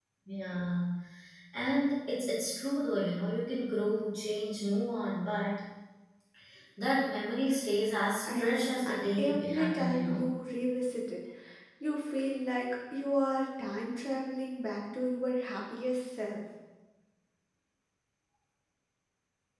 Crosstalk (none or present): present